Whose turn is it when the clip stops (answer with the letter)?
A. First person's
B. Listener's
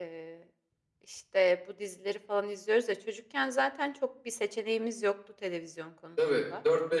B